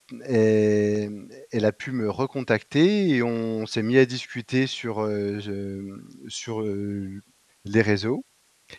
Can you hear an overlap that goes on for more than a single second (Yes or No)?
No